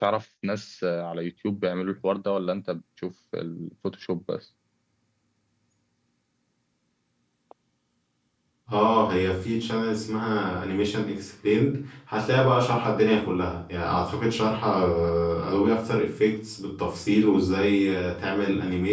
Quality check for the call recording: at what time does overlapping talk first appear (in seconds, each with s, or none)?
none